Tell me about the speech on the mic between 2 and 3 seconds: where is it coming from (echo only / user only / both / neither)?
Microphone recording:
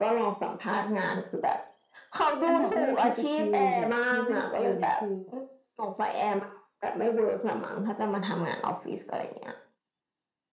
both